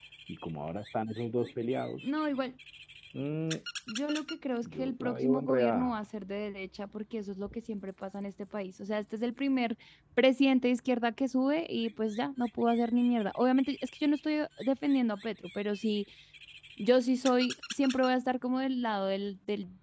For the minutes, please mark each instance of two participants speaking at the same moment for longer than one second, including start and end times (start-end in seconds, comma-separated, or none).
4.7-6.0